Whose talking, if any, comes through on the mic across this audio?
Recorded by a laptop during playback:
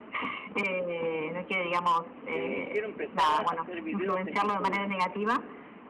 both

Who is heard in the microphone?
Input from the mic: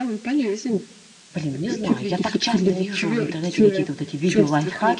both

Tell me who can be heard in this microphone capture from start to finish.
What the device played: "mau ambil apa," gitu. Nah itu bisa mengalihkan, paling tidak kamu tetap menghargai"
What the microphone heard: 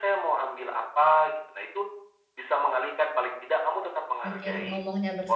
both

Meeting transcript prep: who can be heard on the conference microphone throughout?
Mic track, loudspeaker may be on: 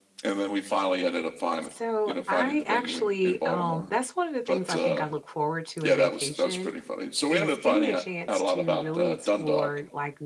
both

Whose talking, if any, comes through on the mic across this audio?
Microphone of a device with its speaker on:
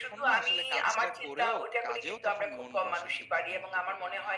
both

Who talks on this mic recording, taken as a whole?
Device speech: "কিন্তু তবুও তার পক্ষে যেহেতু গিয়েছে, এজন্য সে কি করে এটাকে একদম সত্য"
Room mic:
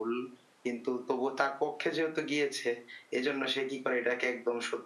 echo only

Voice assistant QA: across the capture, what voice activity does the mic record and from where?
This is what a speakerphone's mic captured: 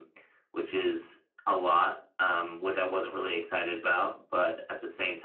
echo only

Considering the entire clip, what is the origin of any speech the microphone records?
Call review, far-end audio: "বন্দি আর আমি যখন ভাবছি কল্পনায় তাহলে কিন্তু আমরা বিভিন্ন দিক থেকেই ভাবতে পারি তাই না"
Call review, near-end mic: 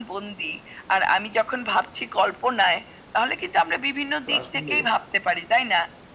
both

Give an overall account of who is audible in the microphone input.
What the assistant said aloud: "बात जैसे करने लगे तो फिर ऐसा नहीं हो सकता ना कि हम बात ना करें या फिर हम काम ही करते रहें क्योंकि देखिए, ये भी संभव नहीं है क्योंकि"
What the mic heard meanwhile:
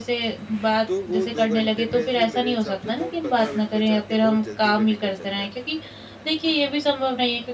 both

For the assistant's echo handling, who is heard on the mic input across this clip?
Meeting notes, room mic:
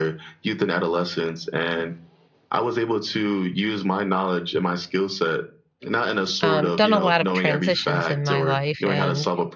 both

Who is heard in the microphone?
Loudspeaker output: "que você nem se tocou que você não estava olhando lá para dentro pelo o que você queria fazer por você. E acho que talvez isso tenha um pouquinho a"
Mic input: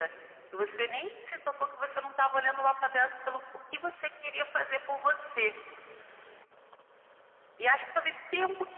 echo only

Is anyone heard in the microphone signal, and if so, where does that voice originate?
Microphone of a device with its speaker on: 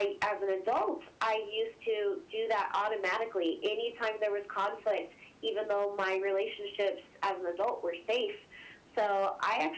echo only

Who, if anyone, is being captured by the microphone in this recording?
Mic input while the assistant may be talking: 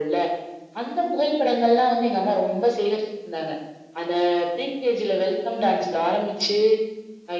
echo only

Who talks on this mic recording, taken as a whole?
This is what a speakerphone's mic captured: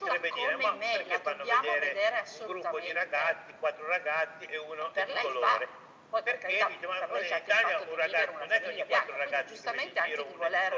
echo only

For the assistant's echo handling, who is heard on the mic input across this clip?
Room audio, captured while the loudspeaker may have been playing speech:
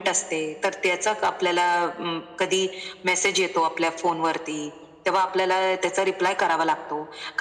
echo only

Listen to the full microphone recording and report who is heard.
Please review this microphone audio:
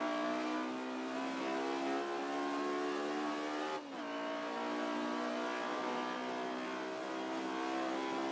neither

